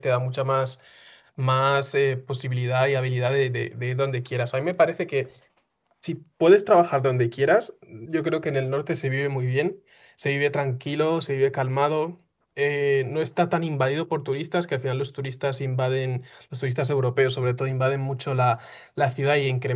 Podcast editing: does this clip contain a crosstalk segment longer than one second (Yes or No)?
No